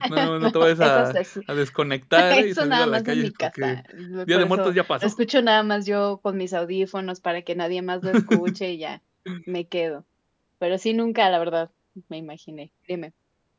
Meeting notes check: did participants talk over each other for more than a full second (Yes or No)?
Yes